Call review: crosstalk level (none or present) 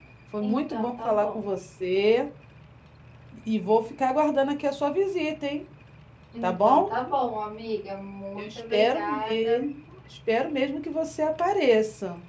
present